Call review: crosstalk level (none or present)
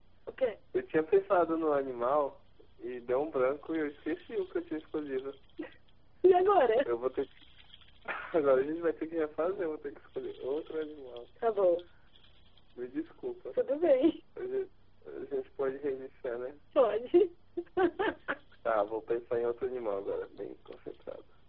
none